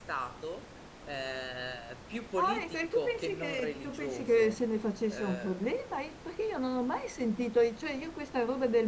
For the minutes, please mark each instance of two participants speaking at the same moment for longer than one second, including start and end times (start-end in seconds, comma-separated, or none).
2.4-4.6